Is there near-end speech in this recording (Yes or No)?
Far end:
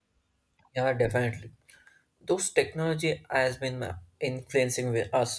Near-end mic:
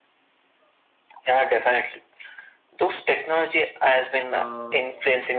Yes